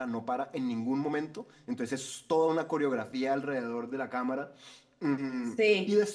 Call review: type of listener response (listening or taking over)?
listening